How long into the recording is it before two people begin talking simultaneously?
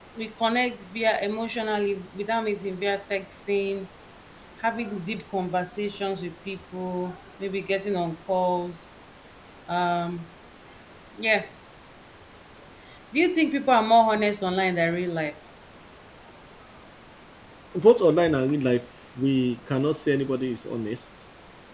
none

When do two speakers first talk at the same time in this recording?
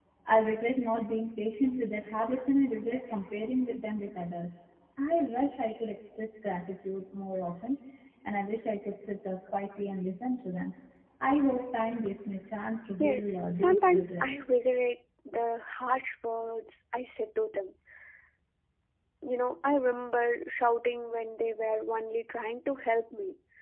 13.0 s

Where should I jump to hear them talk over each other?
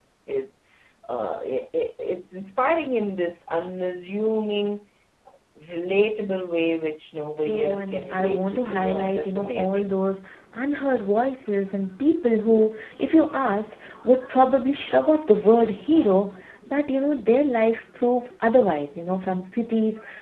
7.4 s

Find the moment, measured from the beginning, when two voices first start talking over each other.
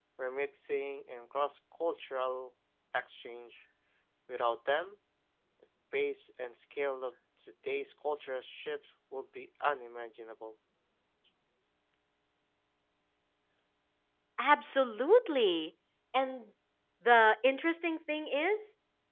none

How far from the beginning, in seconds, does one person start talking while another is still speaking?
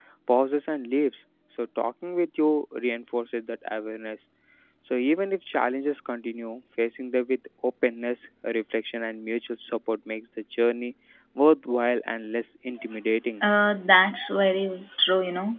none

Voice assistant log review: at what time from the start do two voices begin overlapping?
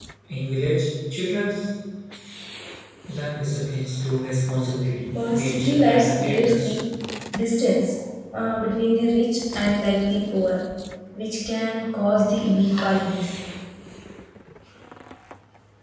5.1 s

